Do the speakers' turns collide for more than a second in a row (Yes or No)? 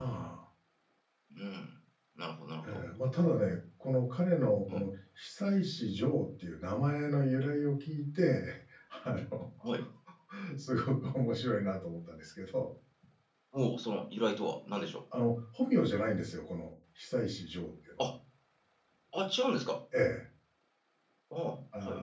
No